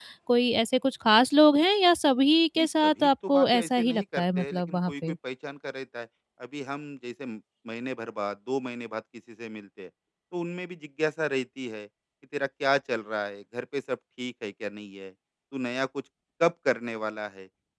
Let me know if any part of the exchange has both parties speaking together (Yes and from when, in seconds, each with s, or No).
Yes, from 2.6 s